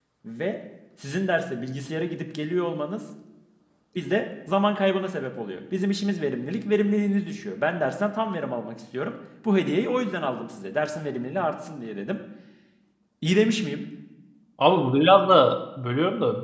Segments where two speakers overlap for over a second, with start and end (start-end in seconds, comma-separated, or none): none